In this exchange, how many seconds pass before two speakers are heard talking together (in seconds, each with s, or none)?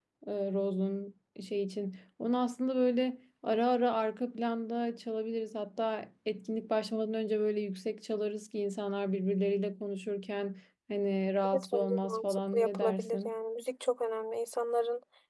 11.4 s